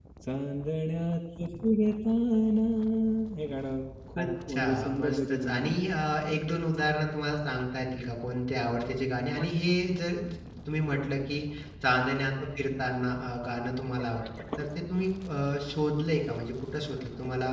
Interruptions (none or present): present